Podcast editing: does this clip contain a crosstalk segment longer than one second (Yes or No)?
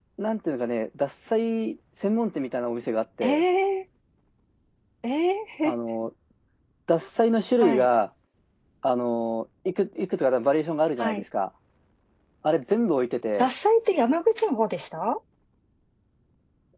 No